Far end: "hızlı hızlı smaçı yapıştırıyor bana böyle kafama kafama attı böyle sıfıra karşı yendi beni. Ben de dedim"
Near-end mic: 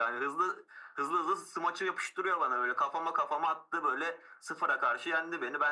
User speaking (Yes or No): No